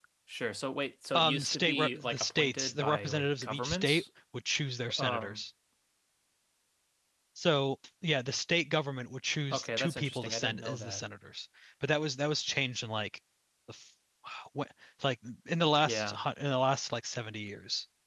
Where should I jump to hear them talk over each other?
1.2 s

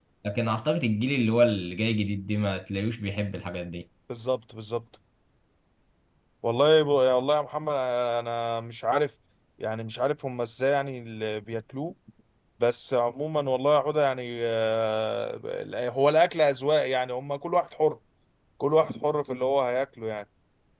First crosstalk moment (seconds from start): none

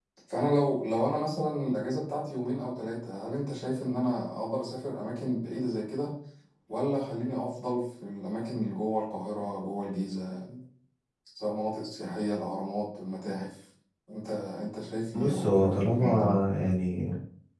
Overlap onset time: 15.1 s

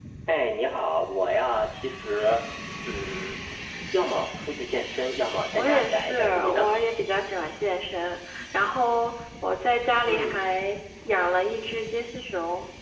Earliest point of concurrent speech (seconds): 5.5 s

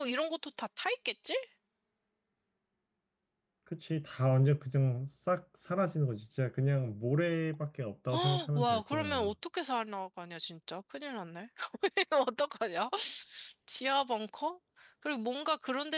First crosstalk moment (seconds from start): 8.1 s

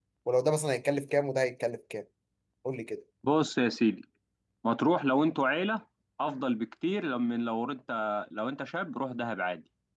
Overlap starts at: none

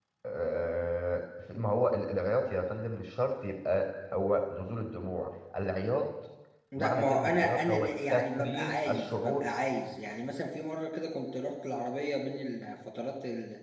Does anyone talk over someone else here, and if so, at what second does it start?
6.8 s

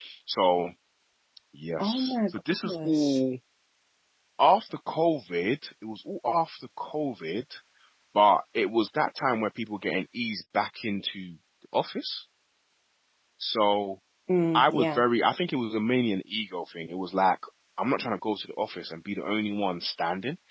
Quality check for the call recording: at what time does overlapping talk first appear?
1.8 s

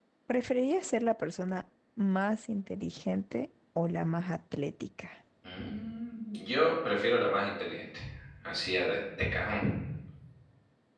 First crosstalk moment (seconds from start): none

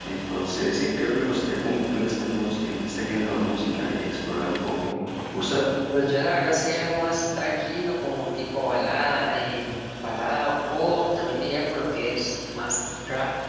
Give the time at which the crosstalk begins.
none

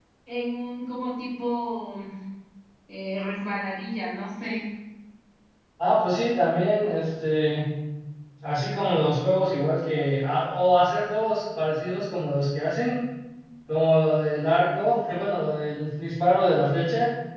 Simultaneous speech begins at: none

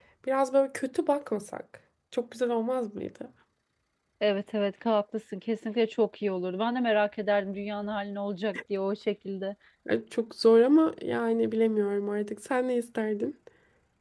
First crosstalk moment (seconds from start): none

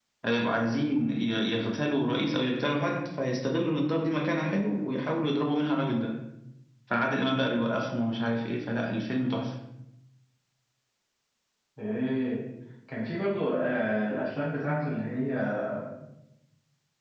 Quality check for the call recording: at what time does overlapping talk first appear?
none

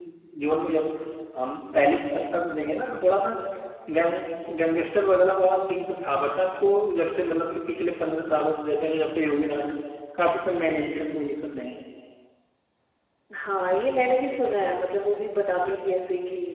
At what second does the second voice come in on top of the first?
none

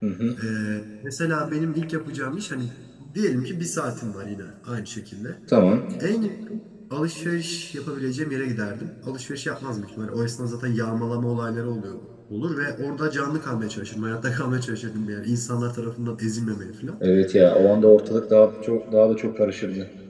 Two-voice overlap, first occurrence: none

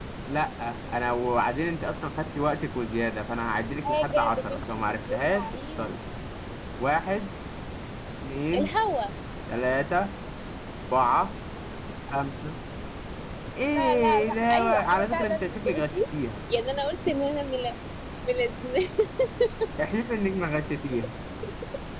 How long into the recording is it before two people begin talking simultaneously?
3.8 s

